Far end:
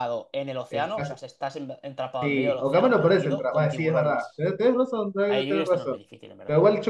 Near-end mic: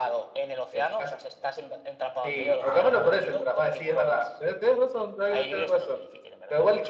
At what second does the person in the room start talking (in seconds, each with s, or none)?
2.6 s